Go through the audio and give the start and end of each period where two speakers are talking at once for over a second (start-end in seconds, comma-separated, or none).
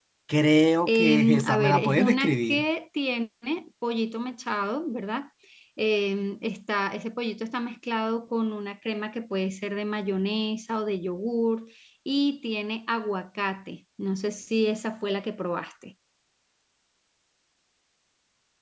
0.9-2.6